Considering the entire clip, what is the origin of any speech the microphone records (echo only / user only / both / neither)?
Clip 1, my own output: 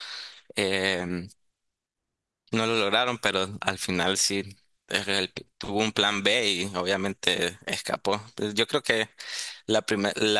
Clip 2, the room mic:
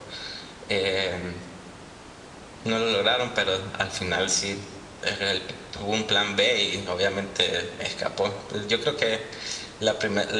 echo only